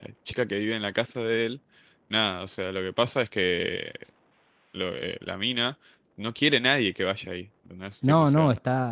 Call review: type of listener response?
taking over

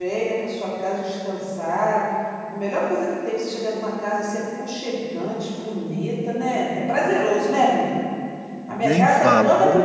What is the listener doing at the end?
listening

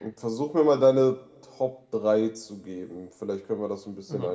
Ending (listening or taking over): taking over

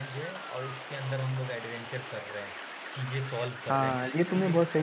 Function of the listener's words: taking over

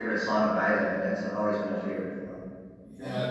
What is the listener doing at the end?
taking over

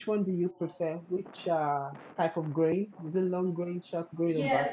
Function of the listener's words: taking over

